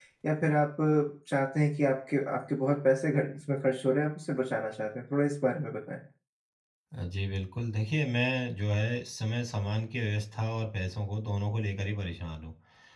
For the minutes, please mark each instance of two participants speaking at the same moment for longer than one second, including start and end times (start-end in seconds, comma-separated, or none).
none